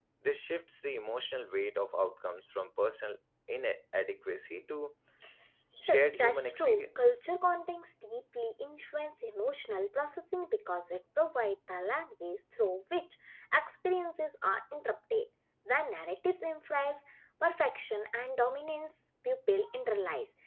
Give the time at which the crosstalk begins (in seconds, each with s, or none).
5.9 s